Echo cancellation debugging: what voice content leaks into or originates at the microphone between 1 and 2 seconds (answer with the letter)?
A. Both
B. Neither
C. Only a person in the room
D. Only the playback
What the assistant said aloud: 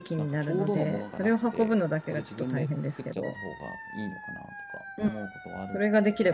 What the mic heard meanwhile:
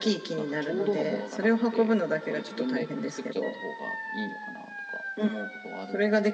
D